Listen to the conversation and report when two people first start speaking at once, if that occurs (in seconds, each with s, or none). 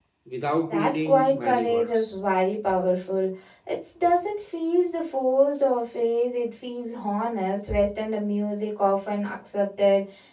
0.7 s